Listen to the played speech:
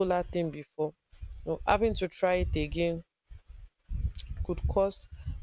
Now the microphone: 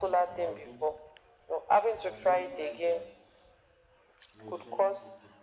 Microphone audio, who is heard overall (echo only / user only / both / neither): both